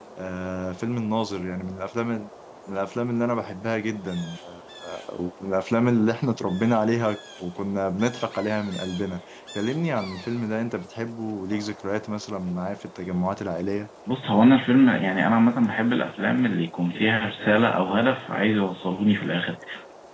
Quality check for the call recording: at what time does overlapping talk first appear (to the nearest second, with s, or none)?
none